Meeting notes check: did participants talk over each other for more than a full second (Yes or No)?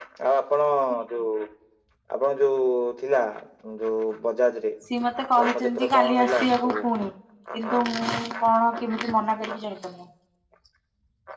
Yes